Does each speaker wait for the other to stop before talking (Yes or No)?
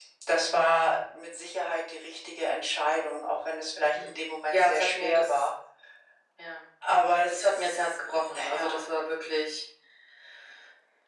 No